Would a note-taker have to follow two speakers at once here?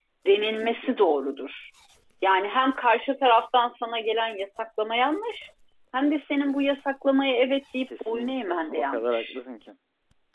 Yes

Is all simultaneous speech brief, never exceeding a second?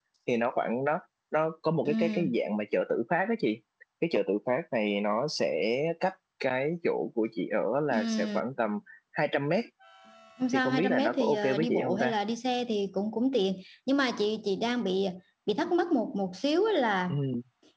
No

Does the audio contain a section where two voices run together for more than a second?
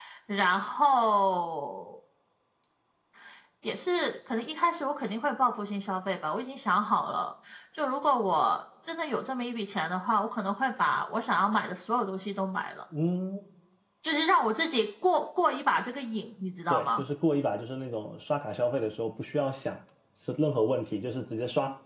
No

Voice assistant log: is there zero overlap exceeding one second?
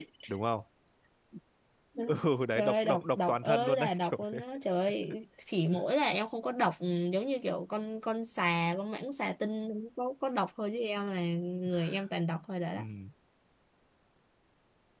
No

